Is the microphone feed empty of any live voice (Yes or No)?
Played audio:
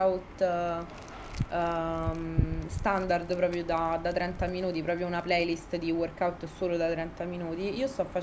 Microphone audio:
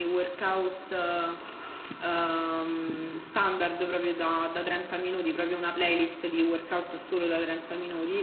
Yes